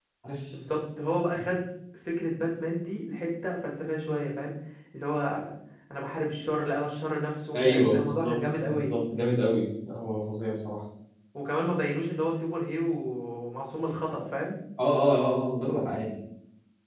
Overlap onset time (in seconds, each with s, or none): 7.5 s